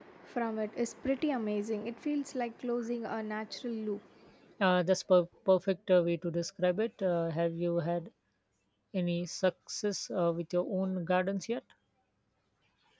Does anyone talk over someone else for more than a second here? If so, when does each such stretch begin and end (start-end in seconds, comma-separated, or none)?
none